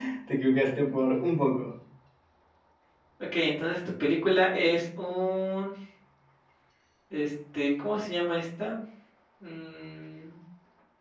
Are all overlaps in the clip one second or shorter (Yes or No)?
Yes